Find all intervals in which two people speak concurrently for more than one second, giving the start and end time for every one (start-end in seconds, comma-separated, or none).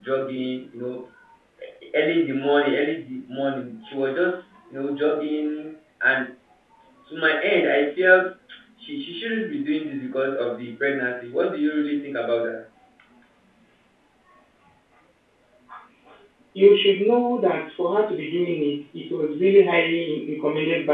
none